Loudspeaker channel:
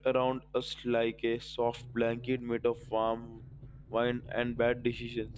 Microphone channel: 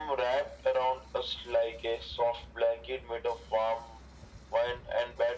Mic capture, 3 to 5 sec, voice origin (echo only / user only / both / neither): echo only